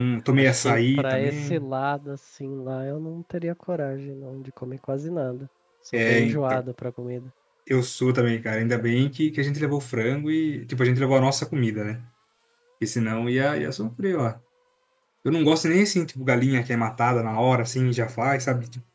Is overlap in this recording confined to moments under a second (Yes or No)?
No